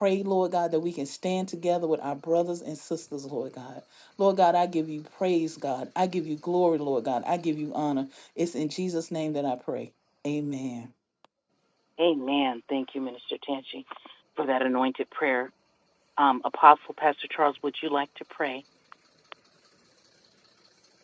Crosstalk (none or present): none